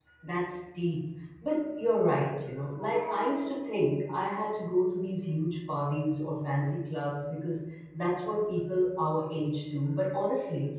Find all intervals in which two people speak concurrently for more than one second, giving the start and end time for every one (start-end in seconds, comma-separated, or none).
none